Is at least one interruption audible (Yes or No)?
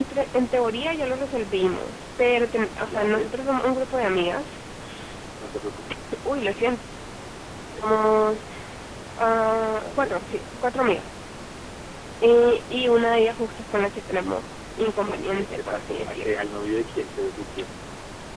Yes